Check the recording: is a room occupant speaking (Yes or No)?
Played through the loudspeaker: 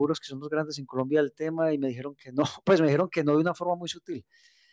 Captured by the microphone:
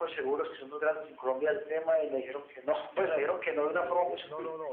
Yes